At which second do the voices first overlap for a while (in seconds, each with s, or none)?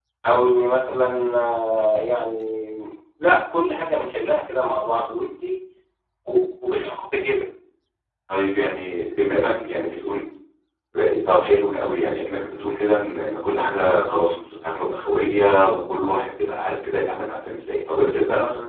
none